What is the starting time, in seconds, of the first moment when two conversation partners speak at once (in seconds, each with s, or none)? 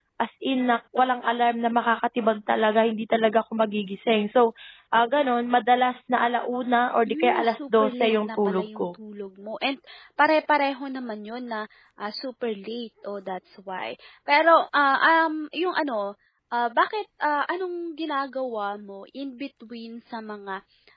7.1 s